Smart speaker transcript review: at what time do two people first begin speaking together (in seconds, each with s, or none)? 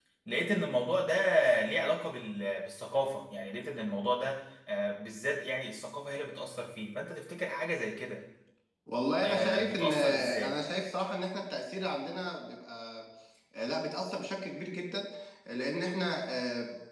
9.2 s